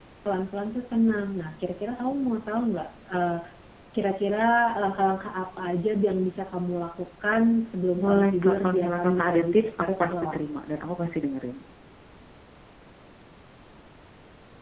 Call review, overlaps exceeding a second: present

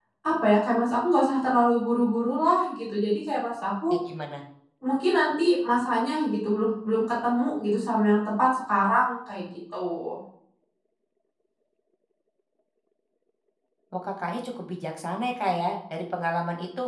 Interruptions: none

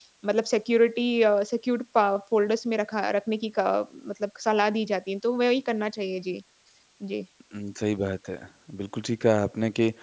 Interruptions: none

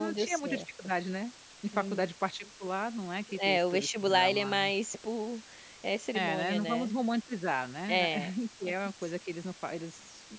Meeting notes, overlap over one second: present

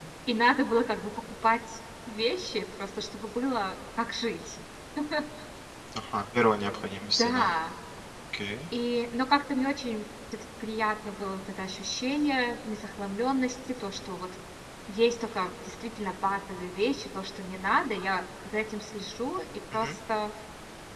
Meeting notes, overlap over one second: none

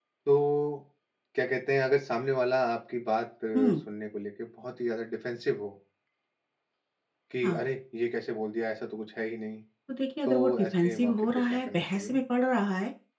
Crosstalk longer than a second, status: present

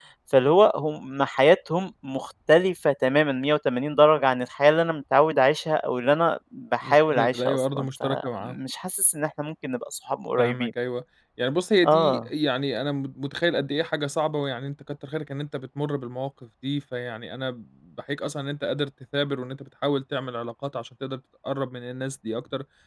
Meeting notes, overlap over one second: present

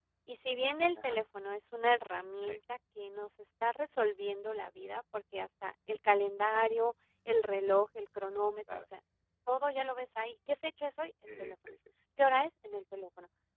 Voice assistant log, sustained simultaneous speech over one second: none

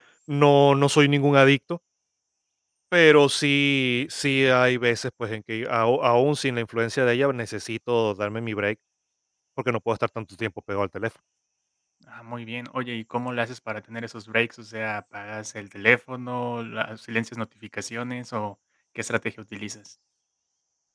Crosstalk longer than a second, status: none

